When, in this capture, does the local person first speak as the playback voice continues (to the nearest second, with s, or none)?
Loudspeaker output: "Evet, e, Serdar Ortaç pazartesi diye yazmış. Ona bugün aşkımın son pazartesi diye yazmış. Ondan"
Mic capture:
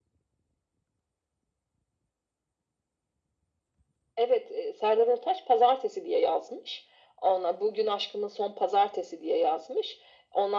none